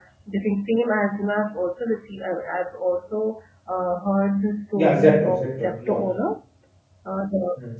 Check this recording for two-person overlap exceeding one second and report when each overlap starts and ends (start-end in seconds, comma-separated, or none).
4.8-6.0